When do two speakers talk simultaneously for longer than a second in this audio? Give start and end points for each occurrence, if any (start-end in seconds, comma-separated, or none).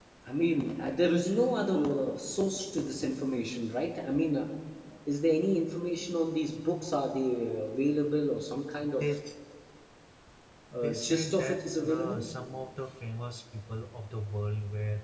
10.7-12.3